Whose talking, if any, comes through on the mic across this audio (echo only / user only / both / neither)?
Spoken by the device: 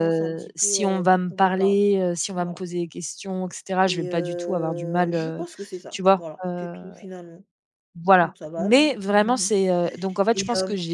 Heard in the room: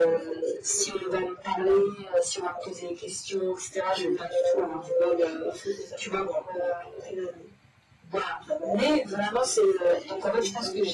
echo only